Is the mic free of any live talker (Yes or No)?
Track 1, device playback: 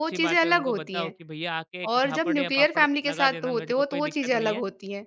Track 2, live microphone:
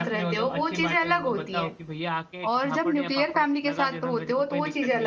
Yes